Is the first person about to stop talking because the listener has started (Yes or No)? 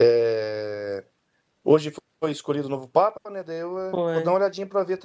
No